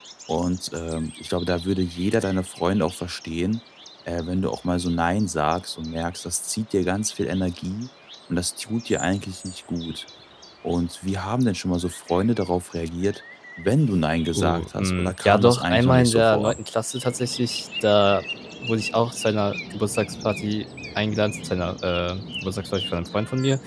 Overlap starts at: 14 s

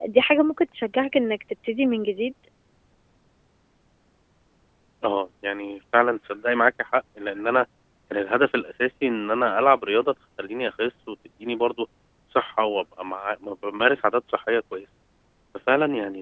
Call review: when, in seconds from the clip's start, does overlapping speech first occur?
none

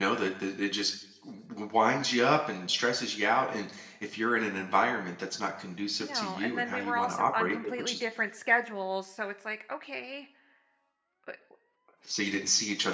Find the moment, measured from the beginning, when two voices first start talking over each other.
6 s

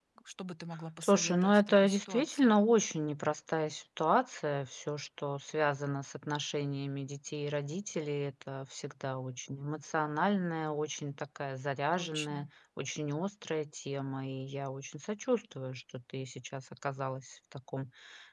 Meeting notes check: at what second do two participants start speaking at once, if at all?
1 s

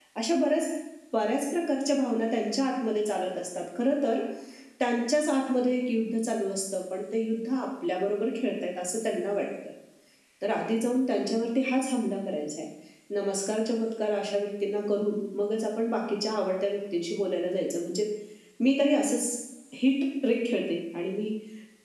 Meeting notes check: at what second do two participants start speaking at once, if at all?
none

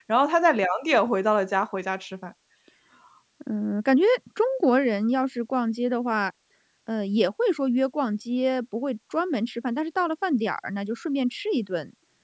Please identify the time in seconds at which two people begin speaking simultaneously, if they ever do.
none

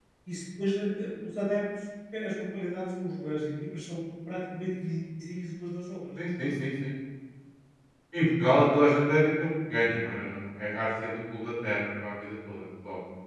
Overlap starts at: none

